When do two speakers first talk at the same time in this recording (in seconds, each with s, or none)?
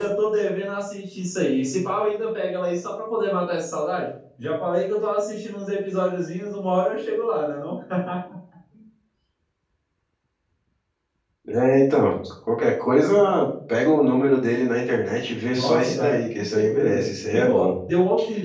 15.5 s